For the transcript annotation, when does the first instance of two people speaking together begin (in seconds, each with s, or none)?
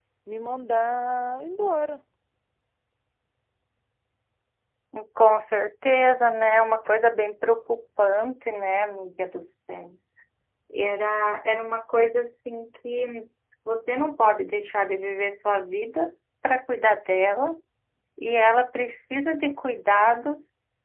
none